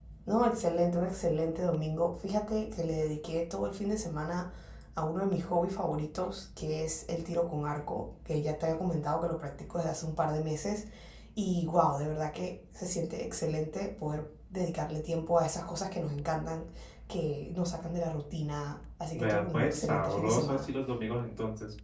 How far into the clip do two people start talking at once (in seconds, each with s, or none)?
19.1 s